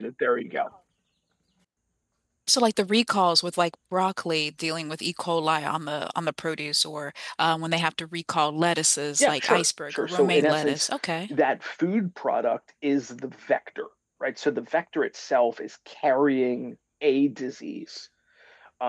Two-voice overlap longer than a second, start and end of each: 9.2-10.9

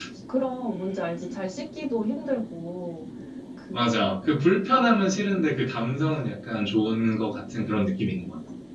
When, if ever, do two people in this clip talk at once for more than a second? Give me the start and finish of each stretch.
none

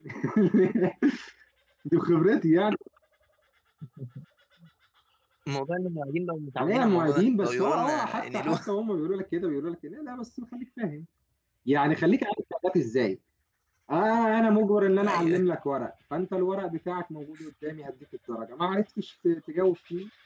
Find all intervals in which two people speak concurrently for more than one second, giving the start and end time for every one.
6.6-8.7

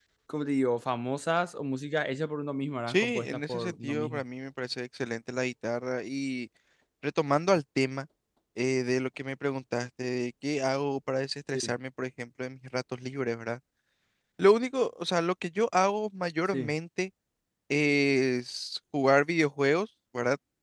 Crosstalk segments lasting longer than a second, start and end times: 2.9-4.2

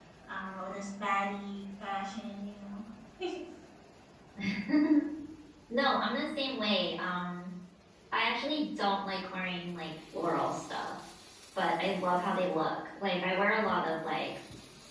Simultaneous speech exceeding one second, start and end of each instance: none

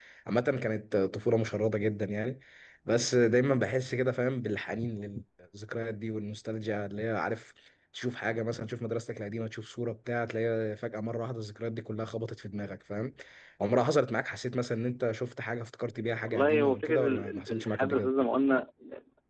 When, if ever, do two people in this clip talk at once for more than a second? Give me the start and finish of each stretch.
16.3-18.1

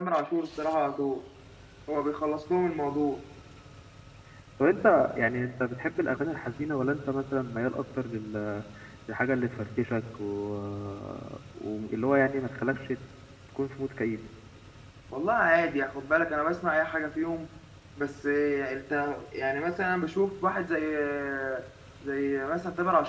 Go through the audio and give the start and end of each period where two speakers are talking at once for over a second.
none

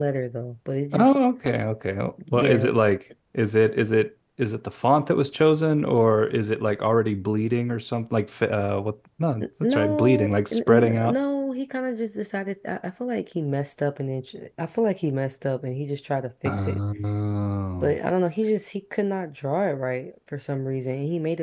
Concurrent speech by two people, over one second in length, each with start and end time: 9.4-11.2

